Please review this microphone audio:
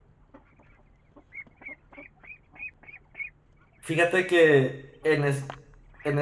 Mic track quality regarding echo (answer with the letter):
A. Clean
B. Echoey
A